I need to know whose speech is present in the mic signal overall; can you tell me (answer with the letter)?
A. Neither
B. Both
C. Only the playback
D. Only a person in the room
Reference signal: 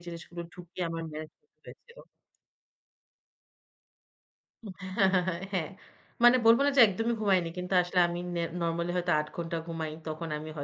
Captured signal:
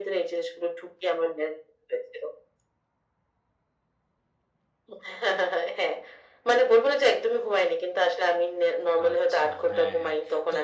B